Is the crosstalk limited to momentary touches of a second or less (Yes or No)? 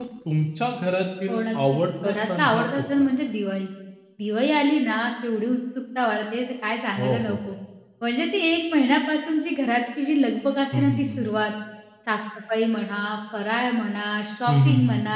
No